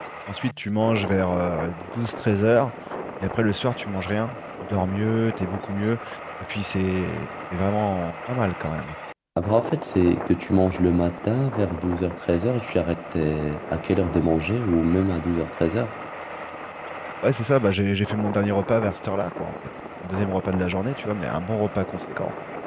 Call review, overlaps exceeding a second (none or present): none